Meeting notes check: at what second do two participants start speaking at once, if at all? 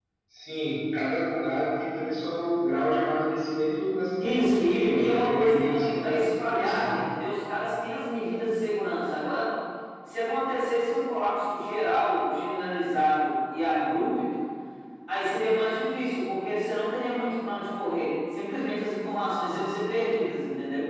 4.2 s

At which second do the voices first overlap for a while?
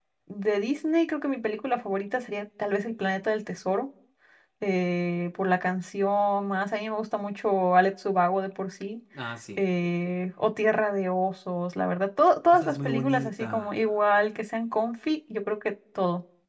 12.5 s

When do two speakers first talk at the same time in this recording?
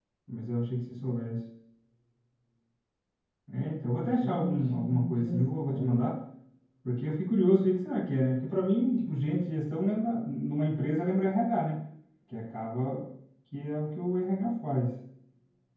4.0 s

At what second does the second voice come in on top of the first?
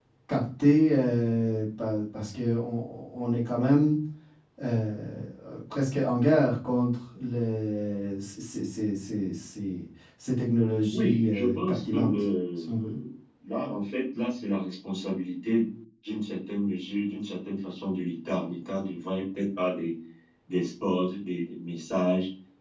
10.9 s

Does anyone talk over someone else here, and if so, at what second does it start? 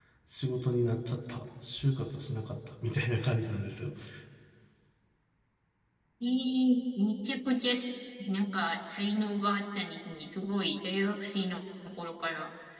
none

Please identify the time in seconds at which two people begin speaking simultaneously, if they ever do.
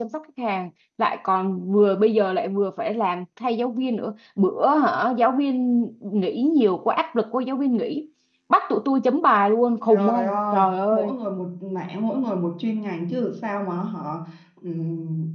9.9 s

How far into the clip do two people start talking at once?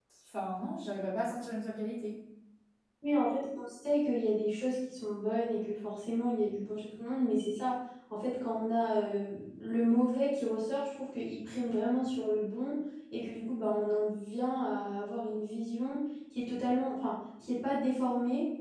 none

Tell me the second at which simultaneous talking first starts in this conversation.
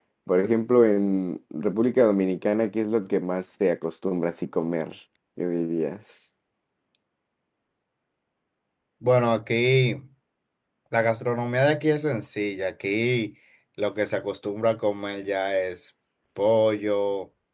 none

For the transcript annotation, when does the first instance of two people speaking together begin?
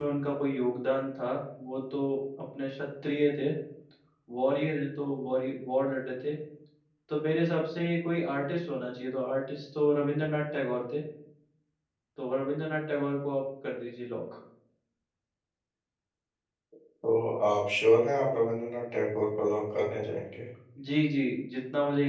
none

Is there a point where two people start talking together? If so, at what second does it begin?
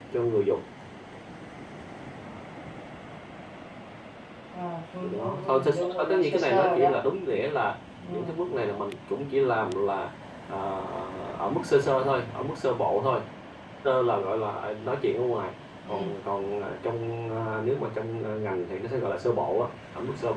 5.0 s

